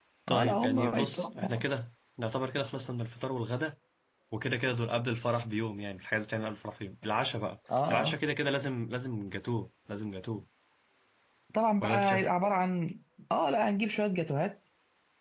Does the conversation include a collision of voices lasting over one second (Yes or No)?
Yes